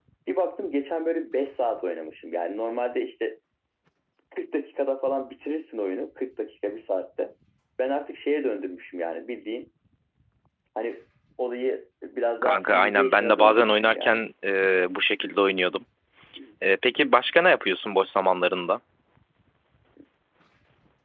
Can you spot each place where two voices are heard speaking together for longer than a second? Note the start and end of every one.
12.4-14.2

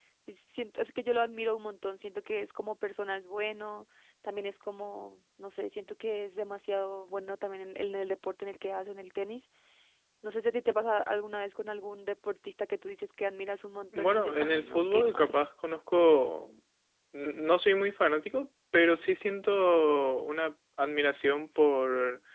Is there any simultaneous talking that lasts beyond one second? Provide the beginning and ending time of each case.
13.9-15.3

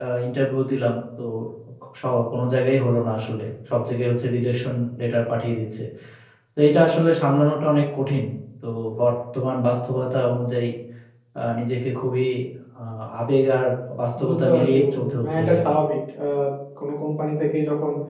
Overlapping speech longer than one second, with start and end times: 14.3-15.6

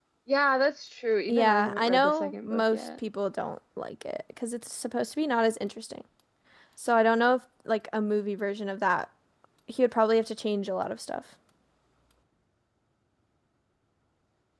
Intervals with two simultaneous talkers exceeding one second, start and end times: 1.3-2.9

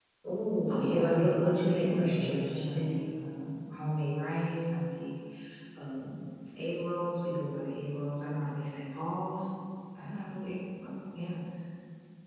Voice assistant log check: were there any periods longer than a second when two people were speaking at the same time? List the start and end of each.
0.7-3.0

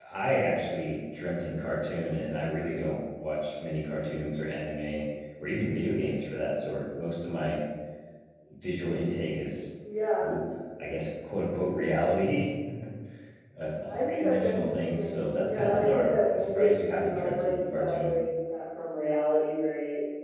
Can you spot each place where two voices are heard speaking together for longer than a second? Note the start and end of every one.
13.9-18.1

